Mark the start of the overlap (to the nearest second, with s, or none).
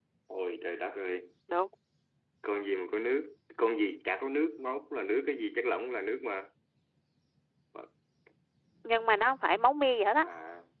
none